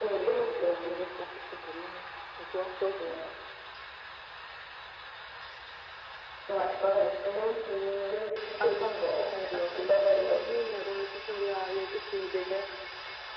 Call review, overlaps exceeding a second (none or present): present